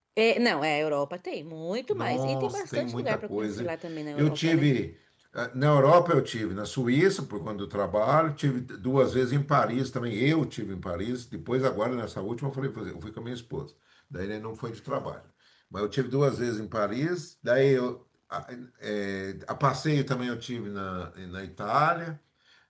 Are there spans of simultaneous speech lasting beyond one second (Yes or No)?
Yes